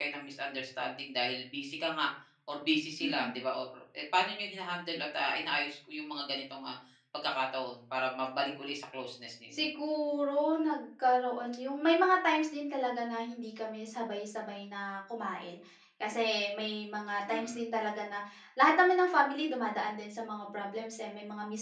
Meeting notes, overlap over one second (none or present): none